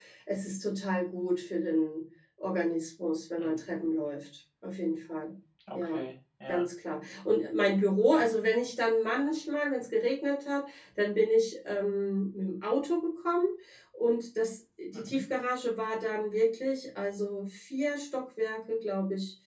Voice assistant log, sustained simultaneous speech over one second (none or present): none